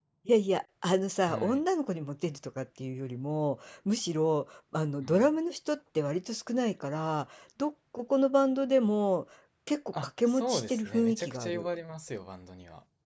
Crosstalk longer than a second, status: present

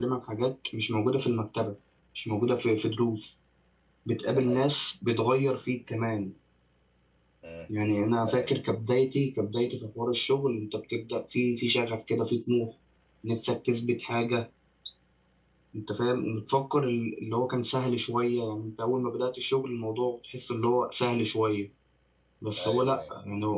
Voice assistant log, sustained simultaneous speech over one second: none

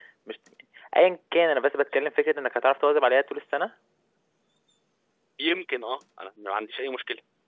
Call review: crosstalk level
none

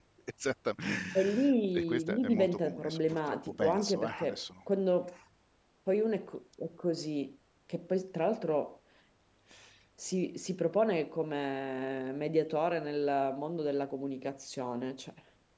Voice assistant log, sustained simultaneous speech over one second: present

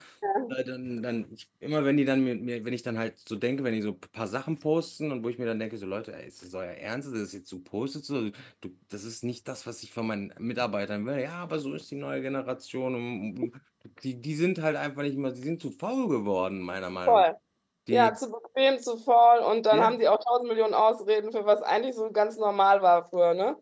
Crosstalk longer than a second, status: none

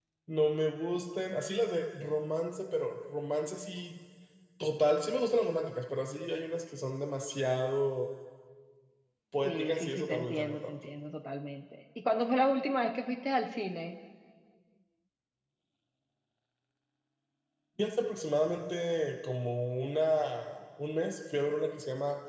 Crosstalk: present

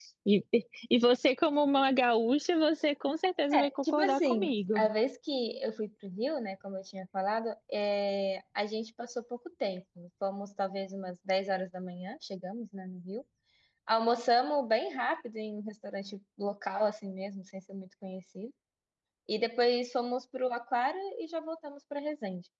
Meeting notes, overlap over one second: present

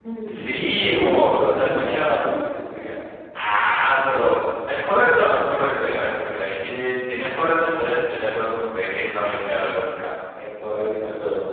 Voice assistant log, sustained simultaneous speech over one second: present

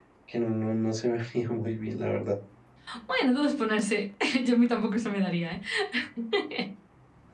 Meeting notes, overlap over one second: none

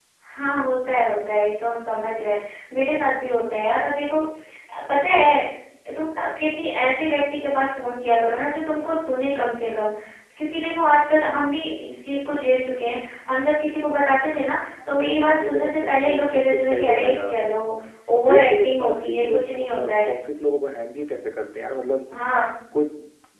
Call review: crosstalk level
present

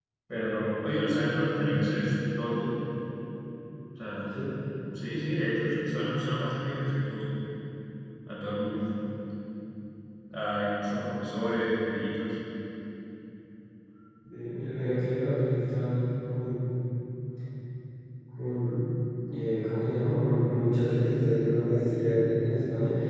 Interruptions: none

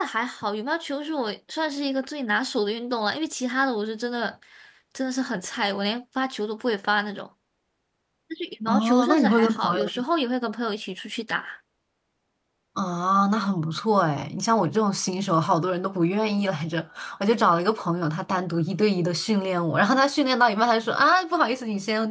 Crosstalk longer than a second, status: present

